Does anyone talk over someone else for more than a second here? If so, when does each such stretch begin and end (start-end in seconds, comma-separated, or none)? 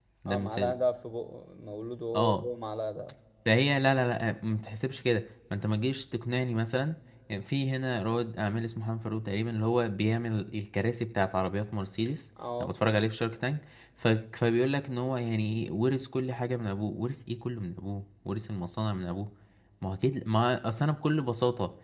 none